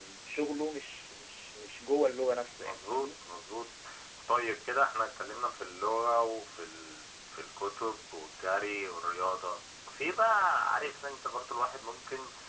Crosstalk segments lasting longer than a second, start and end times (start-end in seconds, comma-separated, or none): none